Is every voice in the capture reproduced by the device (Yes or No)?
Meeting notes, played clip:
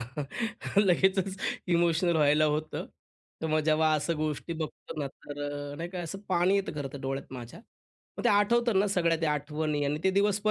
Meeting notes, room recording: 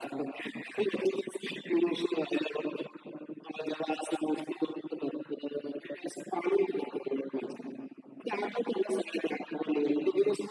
Yes